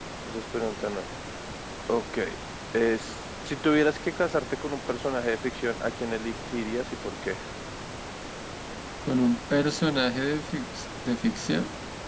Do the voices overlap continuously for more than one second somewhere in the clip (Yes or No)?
No